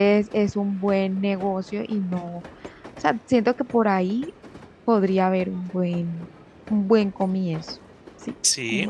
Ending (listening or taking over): taking over